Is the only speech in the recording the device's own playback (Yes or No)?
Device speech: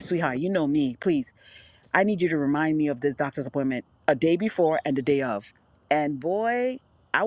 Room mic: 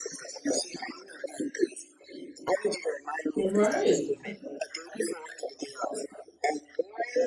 No